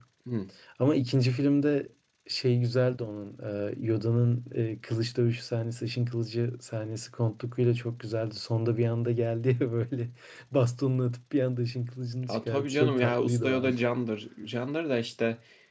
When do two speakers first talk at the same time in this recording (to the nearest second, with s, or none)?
12 s